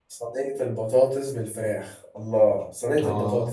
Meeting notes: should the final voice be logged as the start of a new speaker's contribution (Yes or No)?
No